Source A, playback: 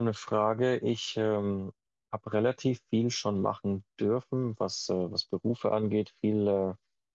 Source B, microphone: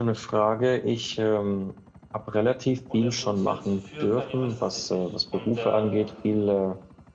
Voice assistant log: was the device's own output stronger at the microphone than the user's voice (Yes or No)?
Yes